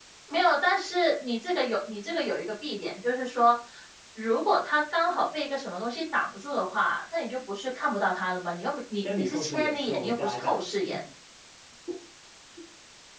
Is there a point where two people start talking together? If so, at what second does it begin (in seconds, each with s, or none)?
9.0 s